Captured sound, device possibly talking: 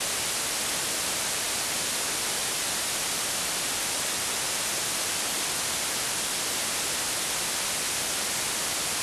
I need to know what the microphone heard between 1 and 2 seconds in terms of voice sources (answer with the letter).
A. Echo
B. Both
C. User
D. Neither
D